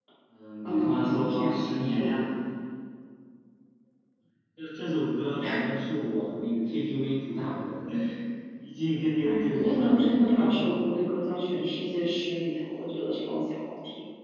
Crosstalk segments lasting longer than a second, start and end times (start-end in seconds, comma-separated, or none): 0.6-2.1, 9.2-10.8